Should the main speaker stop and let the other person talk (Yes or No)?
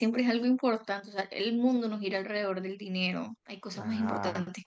Yes